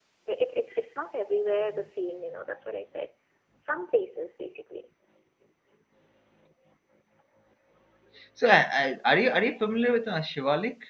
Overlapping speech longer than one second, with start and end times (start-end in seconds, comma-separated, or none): none